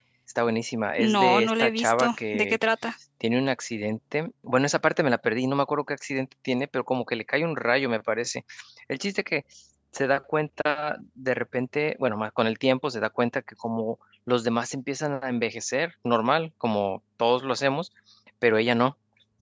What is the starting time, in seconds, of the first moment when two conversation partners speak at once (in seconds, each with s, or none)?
1.0 s